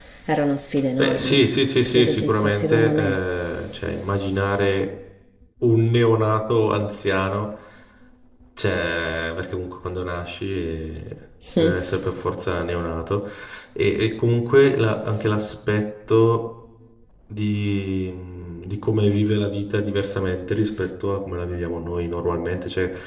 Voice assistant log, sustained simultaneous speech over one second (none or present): present